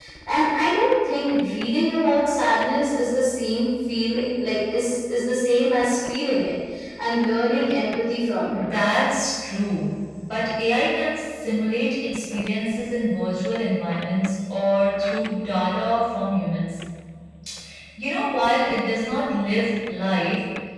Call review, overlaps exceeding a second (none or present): none